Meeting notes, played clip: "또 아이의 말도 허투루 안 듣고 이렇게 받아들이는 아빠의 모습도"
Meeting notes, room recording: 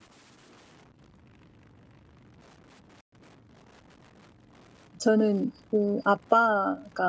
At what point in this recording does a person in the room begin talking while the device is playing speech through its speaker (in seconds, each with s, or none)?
5.0 s